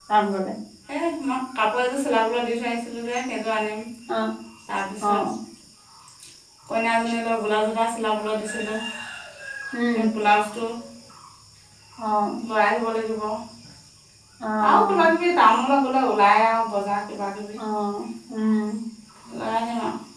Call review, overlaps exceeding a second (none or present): none